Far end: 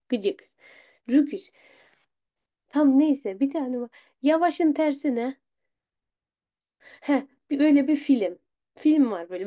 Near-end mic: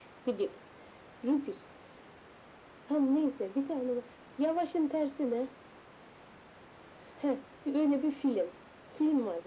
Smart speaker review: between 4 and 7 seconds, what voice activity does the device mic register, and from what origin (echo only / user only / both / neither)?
echo only